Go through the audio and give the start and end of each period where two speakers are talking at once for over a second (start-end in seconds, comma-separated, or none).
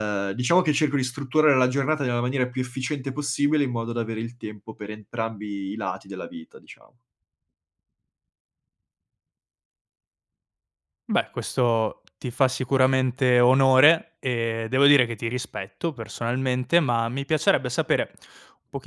none